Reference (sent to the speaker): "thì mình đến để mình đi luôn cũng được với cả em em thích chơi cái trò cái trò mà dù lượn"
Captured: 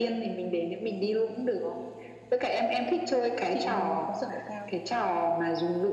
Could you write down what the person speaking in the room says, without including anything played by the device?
chị có sợ độ cao không?

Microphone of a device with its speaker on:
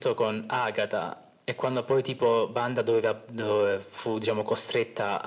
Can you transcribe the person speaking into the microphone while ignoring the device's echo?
none

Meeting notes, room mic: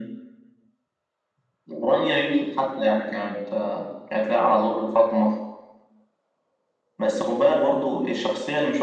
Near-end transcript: none

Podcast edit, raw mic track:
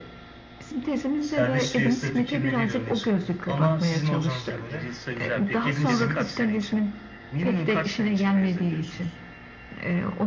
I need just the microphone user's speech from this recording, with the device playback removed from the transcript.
Servis piyasa fikirleriyle öne çıktı. Ama sizin hocanıza göre Adam Smith

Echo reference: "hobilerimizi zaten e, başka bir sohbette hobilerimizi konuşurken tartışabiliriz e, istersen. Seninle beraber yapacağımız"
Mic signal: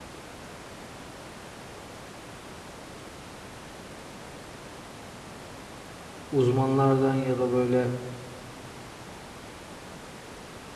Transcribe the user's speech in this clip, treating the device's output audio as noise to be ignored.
Uzmanlardan ya da böyle

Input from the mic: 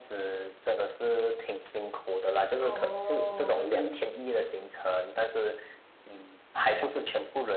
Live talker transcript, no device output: 哦，可是，

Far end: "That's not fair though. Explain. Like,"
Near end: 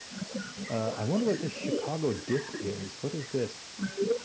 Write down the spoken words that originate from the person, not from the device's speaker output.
Uh, I wonder what this Chicago dip is. What is this?

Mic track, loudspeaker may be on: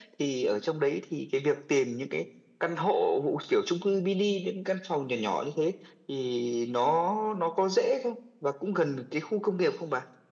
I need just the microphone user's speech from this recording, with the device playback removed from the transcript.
none

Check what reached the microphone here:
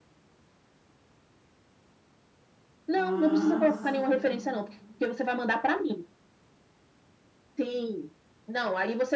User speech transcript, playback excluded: Ah, sim.

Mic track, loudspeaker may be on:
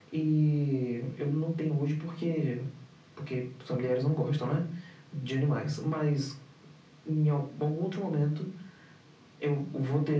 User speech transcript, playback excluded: none

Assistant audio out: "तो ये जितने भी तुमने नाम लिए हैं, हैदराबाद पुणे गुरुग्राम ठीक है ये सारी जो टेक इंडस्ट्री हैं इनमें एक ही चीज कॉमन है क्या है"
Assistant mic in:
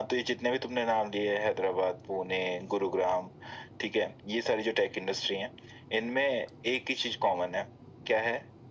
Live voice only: none

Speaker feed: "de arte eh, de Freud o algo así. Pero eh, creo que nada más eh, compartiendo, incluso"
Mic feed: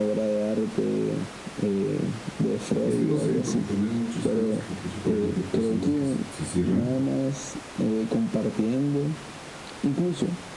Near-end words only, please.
Y es que no sé, porque también hay muchos casos que incluso, por ejemplo, personas que se, se cierran

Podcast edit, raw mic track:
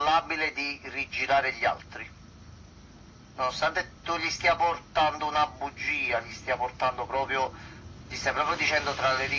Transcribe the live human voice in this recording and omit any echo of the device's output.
none

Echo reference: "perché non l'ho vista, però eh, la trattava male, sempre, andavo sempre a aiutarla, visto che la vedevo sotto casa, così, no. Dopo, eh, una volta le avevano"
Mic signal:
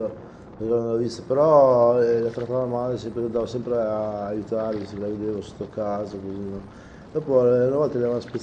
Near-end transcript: none

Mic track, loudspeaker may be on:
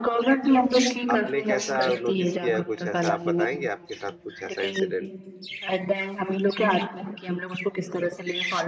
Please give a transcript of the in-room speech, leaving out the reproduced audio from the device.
आपने कैसा नोटिस किया है? कुछ ऐसा आप बताएंगे आपके साथ कुछ ऐसा इंसिडेंट

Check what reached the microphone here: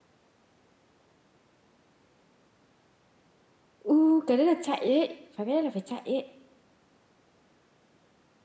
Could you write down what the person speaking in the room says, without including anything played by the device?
Ừ cái đấy là chạy ấy Phải cái đấy là phải chạy ấy

